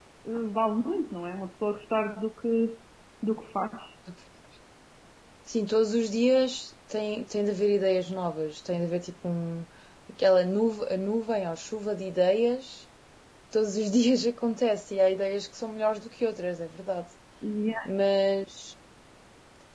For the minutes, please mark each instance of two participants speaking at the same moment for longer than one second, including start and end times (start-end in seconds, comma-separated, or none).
none